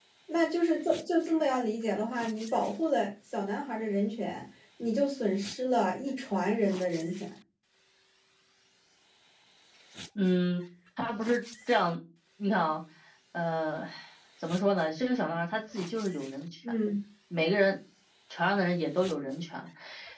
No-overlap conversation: Yes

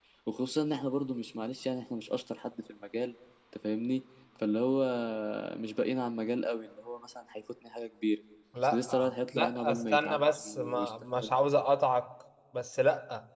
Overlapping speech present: Yes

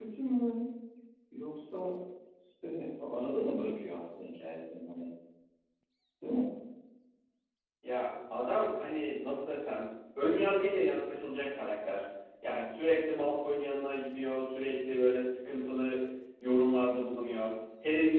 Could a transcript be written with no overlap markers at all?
Yes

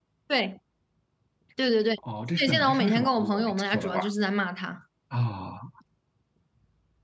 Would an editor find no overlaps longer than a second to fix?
No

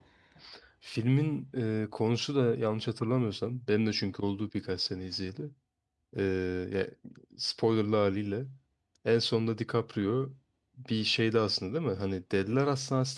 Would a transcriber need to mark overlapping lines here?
No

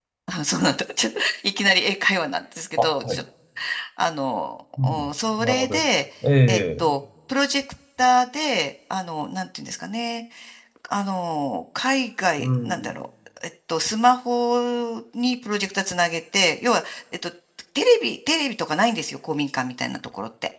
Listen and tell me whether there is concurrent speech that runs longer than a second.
No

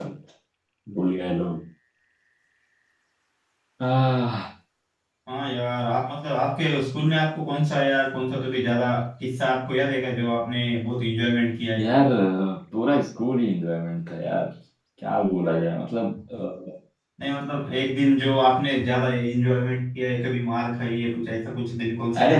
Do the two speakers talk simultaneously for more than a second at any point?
No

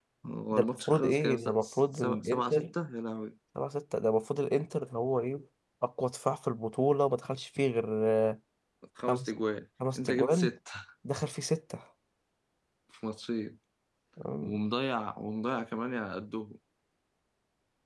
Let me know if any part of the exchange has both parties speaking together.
Yes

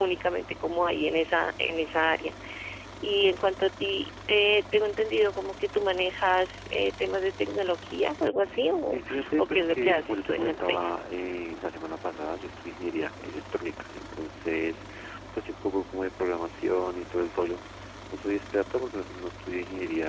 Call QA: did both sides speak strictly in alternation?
No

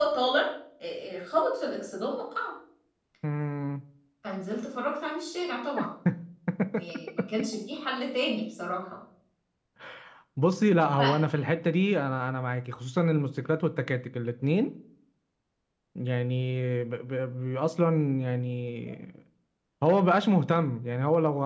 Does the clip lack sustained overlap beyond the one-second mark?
Yes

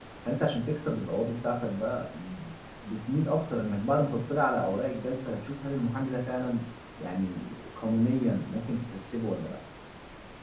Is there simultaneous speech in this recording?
No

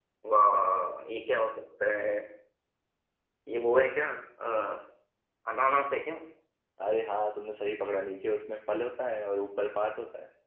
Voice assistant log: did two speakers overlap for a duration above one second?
No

